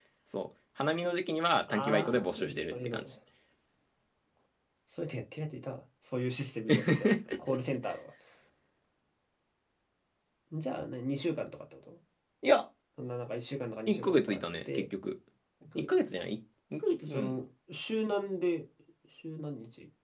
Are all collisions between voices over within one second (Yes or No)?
No